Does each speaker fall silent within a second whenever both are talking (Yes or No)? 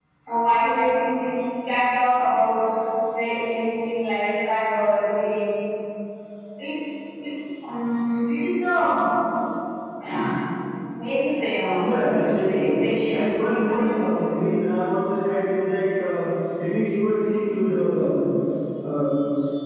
No